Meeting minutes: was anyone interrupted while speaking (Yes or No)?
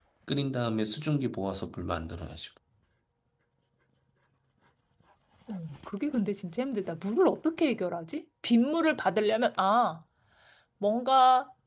No